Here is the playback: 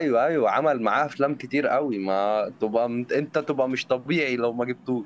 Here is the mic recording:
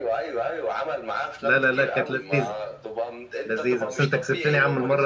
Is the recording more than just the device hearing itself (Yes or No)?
Yes